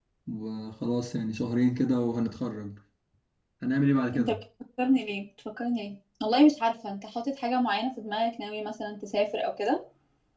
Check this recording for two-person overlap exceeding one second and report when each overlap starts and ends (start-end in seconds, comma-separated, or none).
none